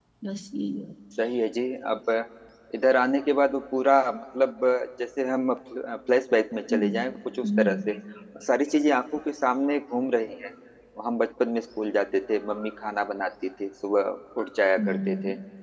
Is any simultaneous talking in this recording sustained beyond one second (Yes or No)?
No